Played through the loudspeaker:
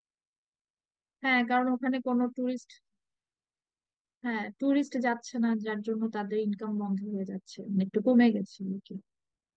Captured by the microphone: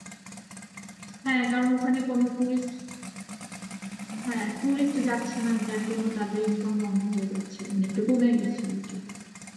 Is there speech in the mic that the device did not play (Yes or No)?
No